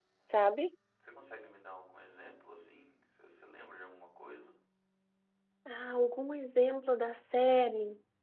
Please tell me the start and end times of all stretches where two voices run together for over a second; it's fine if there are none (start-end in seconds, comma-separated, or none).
none